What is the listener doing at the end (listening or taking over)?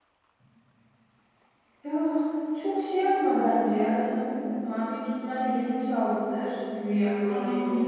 taking over